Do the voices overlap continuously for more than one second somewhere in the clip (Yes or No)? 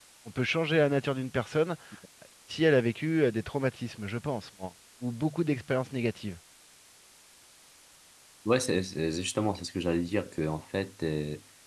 No